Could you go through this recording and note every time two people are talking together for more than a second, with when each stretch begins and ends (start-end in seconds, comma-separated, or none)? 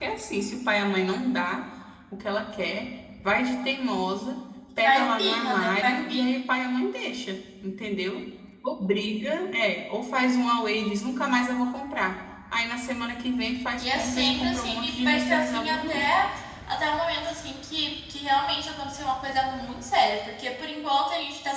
4.8-6.4, 13.8-16.1